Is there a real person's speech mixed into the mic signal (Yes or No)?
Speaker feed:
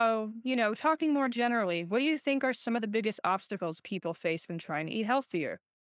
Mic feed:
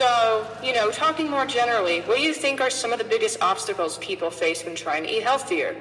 No